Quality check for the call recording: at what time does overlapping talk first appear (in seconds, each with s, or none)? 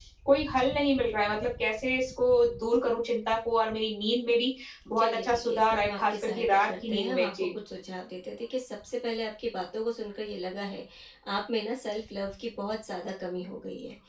5.0 s